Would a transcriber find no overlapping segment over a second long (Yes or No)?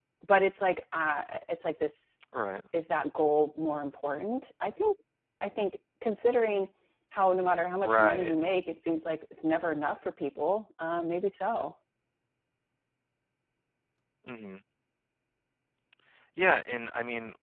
Yes